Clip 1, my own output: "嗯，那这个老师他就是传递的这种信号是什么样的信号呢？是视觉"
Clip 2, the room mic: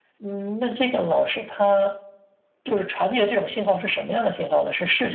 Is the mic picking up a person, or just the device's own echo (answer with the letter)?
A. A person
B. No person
B